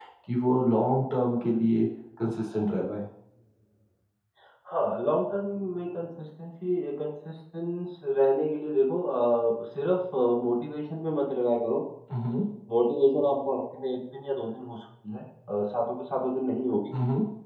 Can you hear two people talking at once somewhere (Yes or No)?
No